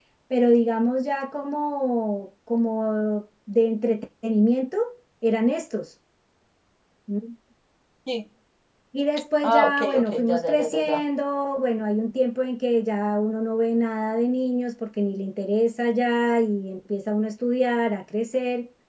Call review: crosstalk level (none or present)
present